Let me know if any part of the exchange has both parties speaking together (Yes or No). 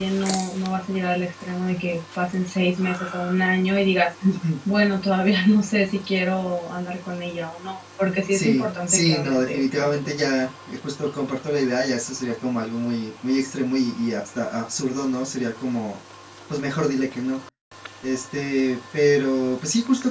Yes